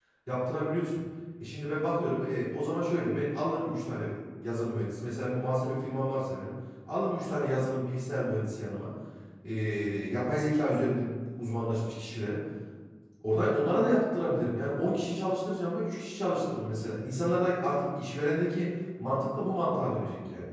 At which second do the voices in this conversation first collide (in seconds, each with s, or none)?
none